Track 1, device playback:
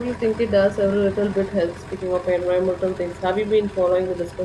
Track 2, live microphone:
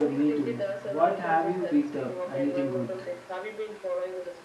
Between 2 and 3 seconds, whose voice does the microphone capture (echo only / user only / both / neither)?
both